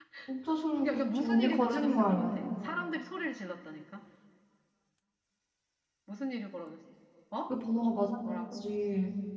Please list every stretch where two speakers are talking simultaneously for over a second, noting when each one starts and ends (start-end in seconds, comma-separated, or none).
0.8-2.4